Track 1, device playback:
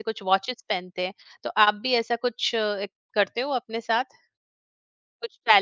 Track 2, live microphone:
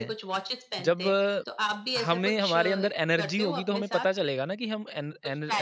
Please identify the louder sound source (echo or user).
user